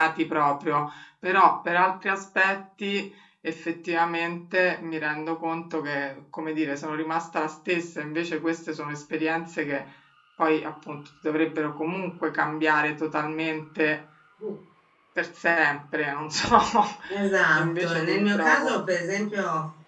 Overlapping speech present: Yes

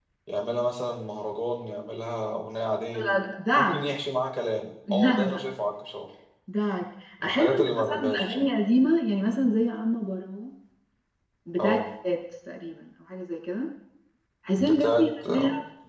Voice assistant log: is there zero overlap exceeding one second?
No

